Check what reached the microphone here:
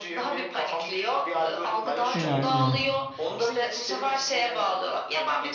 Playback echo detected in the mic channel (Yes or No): Yes